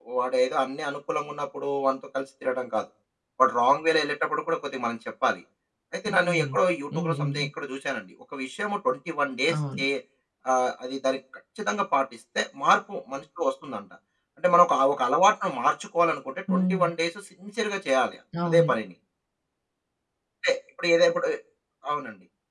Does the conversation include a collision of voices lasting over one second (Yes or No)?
No